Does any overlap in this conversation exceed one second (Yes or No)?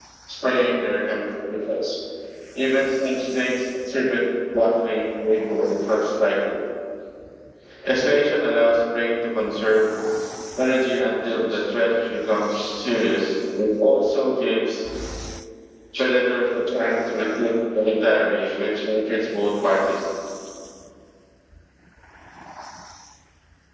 No